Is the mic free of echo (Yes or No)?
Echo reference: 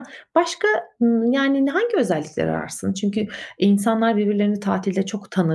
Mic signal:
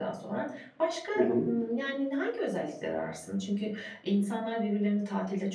No